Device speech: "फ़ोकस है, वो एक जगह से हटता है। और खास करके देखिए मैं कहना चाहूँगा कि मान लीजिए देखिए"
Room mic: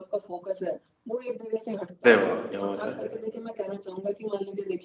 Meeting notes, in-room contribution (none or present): present